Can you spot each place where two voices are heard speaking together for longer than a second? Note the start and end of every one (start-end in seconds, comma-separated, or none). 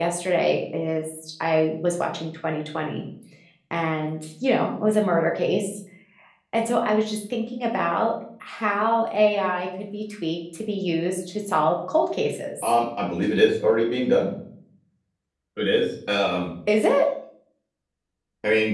none